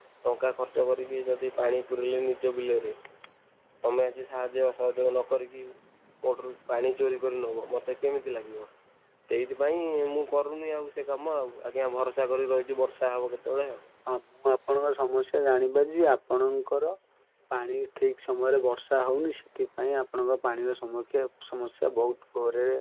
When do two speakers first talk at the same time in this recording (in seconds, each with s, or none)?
none